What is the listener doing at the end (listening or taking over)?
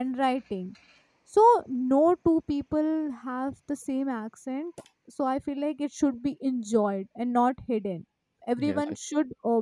listening